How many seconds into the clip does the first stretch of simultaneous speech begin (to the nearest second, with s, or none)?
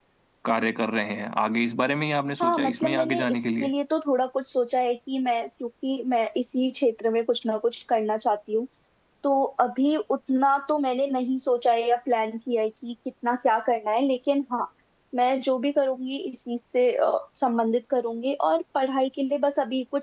2 s